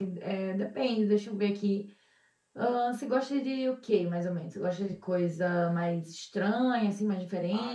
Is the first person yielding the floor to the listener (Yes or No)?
Yes